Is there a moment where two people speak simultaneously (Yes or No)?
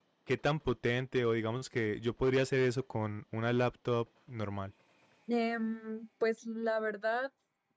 No